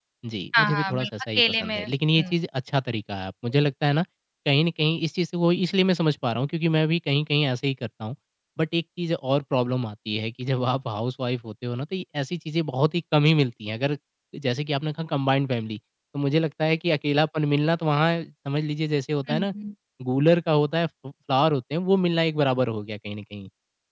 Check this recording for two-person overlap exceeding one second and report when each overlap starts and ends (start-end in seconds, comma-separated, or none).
0.6-1.8